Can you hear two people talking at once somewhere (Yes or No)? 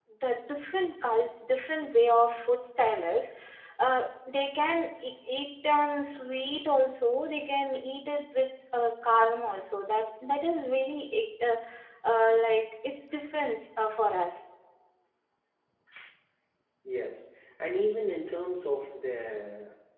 No